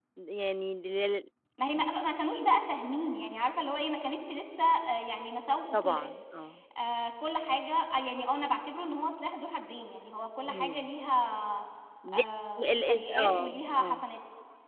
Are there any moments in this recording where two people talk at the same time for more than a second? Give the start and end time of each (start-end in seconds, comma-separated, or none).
12.6-14.0